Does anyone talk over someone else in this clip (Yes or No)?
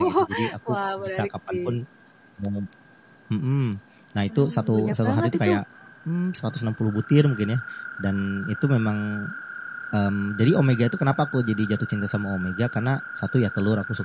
Yes